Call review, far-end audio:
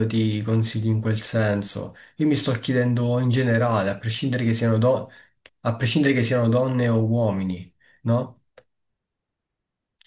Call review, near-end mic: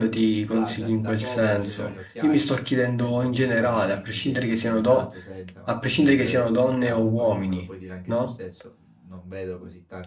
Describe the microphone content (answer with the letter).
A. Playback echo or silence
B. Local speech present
B